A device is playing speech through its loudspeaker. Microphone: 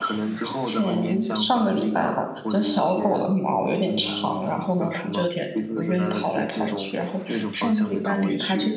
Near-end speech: present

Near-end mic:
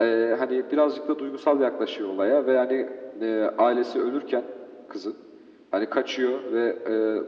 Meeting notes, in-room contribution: none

